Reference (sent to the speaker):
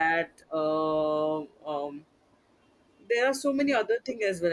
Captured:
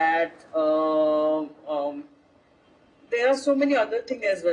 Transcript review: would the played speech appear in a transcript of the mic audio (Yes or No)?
Yes